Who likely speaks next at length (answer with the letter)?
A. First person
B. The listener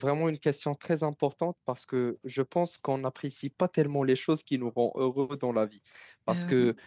A